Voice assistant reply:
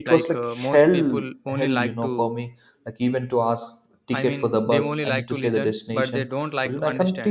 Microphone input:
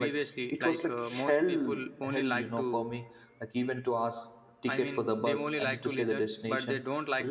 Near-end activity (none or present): none